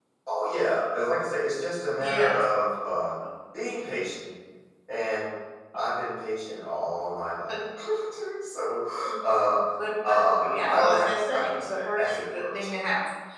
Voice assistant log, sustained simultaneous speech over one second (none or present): present